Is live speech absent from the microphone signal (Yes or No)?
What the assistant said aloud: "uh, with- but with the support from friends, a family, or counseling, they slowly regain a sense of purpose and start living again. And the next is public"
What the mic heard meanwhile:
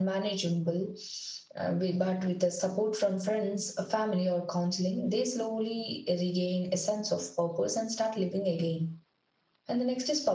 Yes